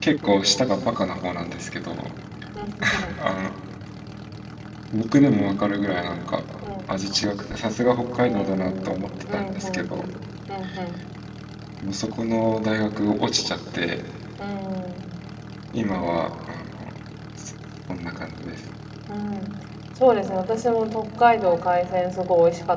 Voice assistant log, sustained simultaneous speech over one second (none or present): present